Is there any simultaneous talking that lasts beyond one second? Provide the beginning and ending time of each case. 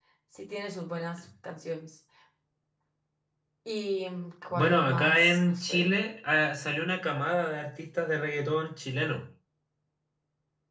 4.5-5.9

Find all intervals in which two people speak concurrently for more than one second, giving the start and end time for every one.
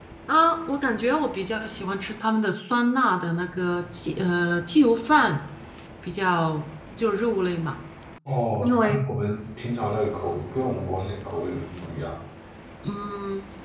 none

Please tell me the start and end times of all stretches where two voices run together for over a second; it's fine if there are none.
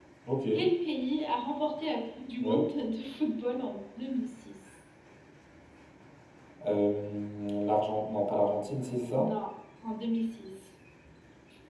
none

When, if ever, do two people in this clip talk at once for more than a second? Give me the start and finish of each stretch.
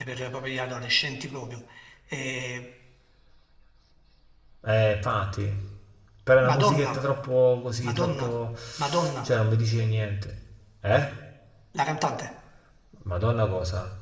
none

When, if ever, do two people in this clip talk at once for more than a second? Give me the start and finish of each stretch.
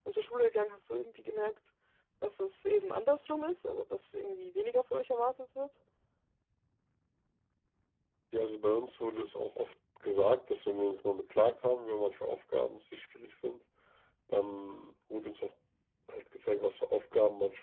none

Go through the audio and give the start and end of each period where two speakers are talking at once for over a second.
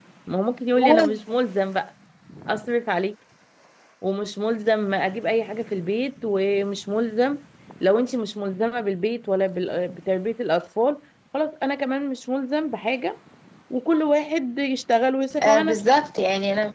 none

